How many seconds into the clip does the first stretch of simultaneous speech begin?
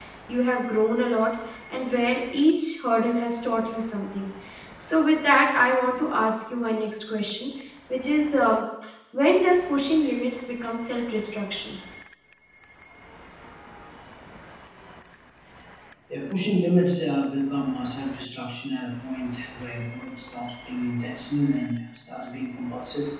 none

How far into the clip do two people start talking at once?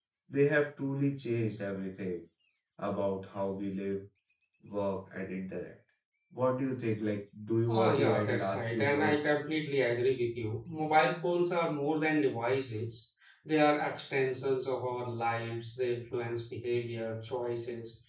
7.7 s

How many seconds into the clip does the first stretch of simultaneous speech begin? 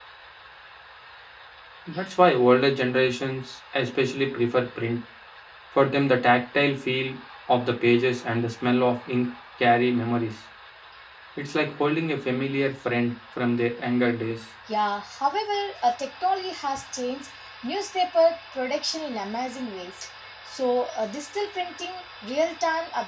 none

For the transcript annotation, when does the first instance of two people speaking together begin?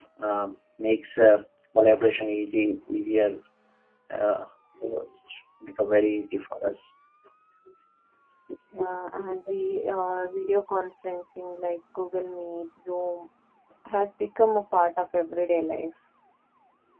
none

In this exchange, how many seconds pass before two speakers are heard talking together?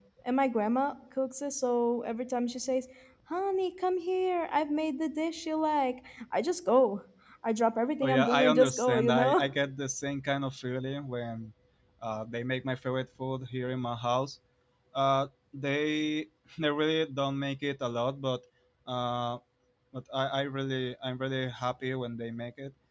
8.0 s

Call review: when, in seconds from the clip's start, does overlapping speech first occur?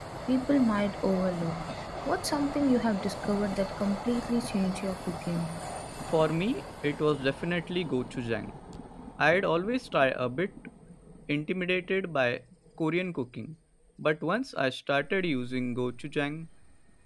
none

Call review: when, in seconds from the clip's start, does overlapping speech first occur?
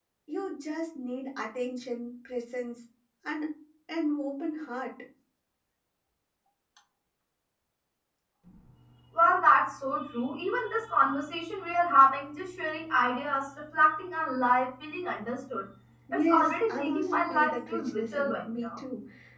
16.1 s

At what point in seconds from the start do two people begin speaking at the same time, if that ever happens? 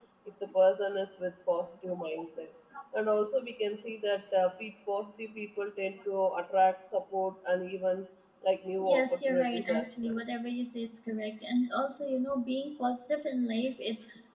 8.8 s

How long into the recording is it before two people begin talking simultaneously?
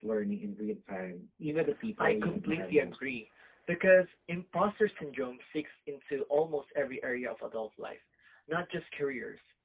2.0 s

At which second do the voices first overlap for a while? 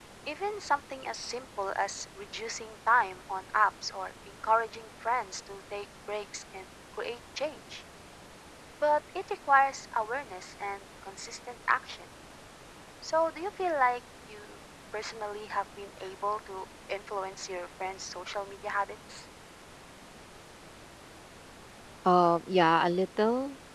none

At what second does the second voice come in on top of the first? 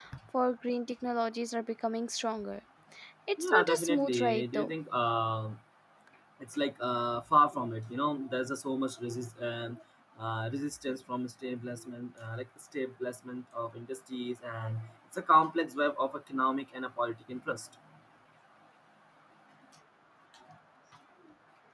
3.4 s

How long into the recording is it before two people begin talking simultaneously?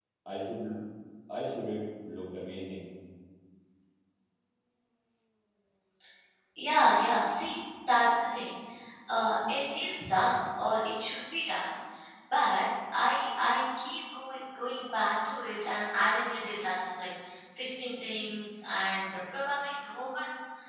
none

